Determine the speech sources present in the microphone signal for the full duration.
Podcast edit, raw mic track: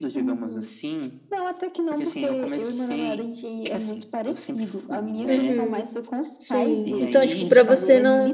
both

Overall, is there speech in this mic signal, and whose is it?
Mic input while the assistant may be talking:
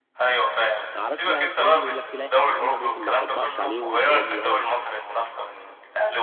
both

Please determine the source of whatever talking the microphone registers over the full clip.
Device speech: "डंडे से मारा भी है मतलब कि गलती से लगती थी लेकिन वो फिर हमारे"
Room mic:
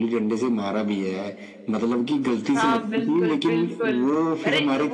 both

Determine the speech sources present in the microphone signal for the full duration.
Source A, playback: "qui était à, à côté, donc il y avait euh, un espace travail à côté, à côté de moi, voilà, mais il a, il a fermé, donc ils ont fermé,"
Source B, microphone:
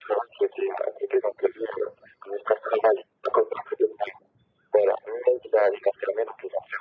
echo only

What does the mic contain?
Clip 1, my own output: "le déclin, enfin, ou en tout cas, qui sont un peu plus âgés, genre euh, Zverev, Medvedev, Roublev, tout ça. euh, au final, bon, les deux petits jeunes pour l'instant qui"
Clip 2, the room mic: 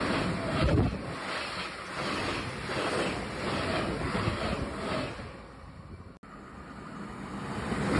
neither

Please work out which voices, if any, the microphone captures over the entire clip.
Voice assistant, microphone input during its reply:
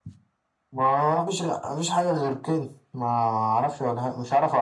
echo only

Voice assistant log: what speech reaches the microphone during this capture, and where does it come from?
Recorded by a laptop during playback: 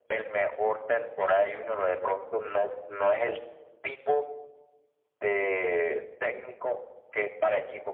echo only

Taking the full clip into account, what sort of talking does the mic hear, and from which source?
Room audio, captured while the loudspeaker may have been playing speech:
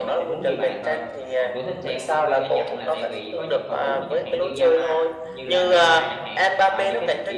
both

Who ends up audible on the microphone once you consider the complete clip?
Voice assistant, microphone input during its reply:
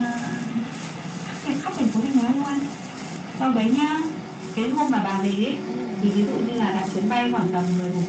both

